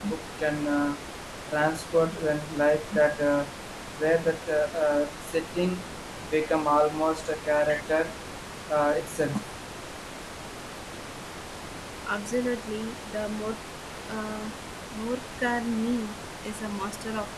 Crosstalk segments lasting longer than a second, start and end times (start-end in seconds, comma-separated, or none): none